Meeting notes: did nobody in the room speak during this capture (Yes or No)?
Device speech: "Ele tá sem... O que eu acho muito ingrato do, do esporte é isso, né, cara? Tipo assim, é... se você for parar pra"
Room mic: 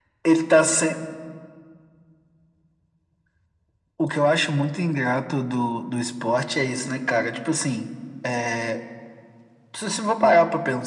Yes